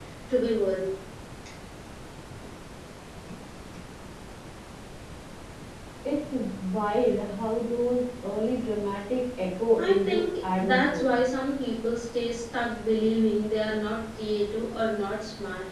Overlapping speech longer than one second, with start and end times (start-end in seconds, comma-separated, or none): 9.8-11.1